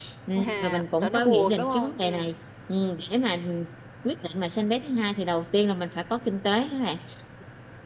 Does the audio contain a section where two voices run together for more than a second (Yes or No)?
Yes